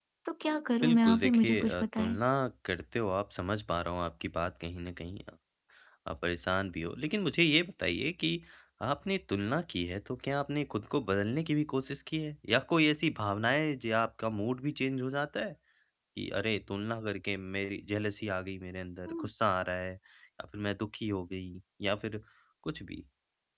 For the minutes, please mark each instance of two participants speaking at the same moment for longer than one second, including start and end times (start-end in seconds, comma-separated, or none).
0.8-2.2